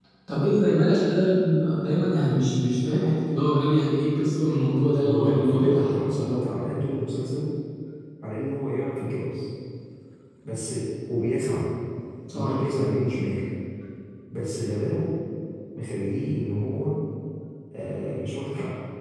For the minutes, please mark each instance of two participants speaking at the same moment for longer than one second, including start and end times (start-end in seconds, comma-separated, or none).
5.0-6.4